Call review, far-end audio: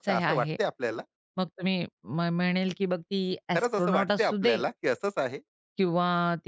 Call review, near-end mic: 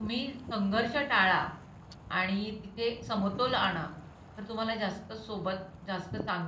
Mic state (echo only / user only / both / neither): user only